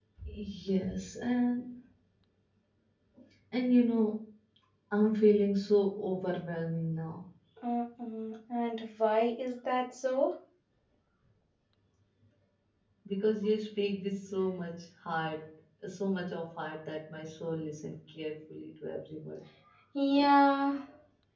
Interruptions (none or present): none